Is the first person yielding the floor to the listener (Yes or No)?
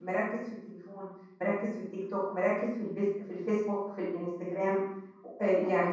Yes